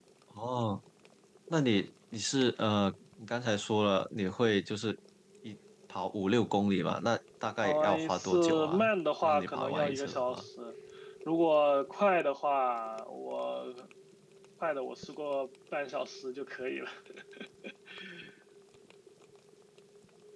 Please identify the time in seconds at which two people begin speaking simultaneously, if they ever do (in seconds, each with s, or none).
7.6 s